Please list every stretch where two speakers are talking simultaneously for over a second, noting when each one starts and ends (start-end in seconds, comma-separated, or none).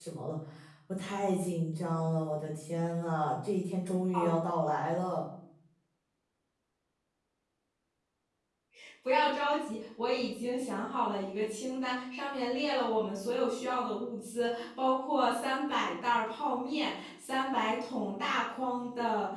none